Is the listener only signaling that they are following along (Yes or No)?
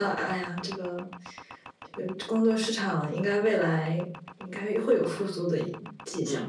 No